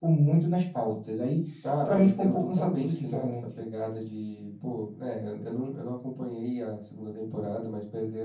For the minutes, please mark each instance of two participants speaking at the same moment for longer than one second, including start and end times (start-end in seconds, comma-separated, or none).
1.9-3.3